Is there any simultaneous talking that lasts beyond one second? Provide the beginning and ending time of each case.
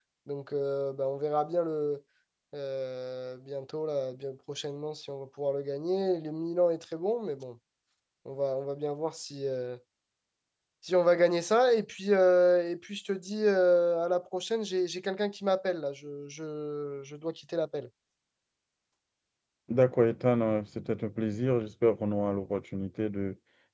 none

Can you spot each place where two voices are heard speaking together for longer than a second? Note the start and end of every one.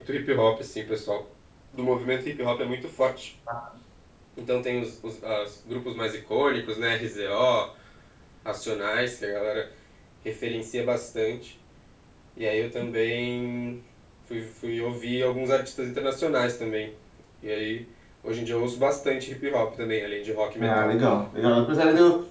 none

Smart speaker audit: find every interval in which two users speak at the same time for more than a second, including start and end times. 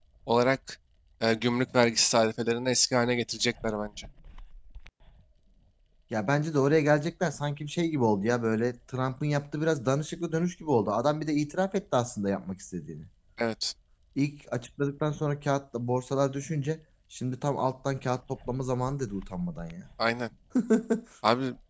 none

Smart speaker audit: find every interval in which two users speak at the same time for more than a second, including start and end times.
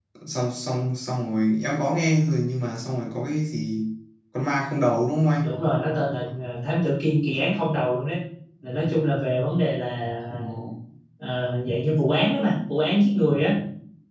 none

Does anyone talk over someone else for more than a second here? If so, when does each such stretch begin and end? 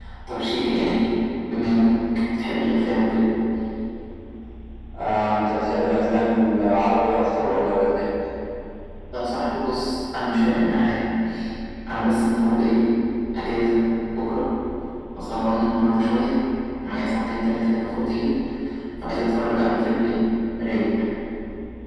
none

